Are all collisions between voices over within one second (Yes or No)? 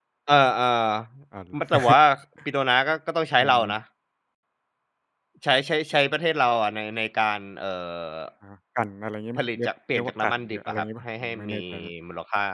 No